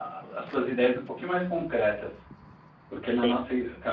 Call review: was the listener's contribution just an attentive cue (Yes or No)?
Yes